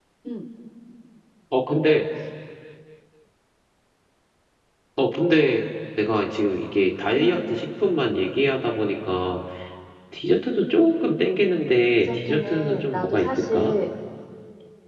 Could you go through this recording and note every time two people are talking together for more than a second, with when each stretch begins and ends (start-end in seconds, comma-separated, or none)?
12.0-13.7